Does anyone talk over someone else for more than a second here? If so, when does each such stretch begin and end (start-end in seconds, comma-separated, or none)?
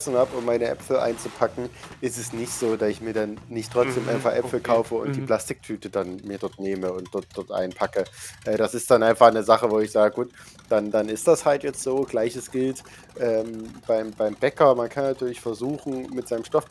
3.8-5.3